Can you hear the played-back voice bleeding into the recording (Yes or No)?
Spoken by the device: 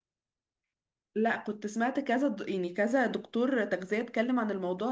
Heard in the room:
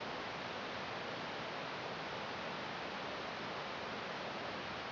No